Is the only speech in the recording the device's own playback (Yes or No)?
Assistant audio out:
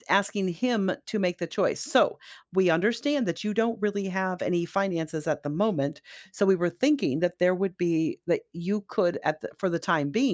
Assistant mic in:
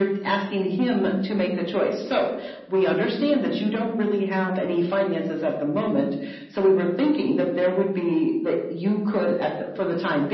Yes